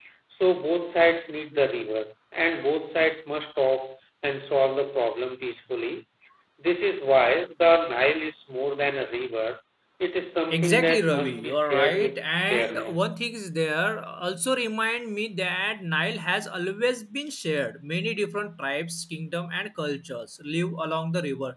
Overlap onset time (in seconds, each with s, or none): 10.5 s